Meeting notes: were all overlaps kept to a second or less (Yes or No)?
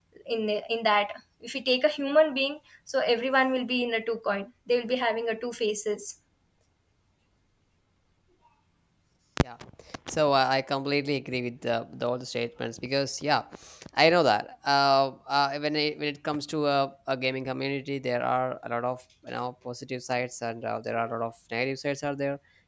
Yes